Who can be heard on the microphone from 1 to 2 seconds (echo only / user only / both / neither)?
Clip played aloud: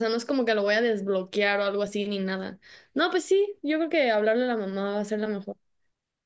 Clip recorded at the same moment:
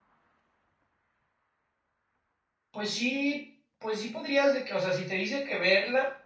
neither